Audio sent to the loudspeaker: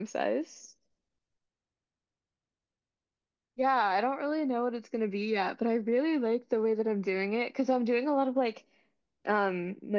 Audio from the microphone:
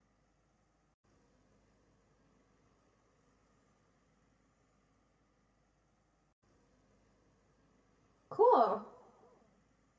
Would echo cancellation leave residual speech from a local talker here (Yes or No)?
Yes